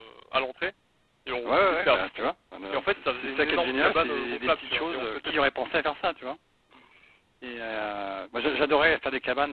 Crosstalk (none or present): present